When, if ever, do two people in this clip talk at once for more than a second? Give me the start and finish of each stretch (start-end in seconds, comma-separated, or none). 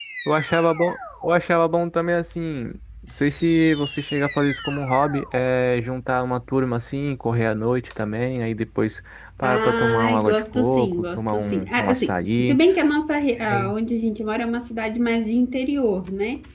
9.4-12.6